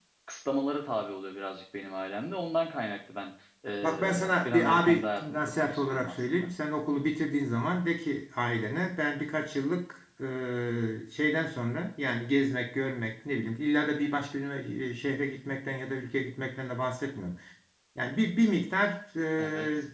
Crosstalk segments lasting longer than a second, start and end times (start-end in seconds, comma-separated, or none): 3.8-6.5